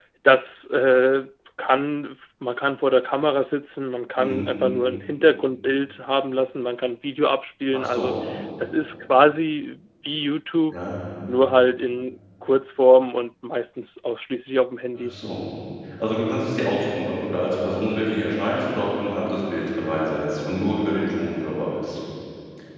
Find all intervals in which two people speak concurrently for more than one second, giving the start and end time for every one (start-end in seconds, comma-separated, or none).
none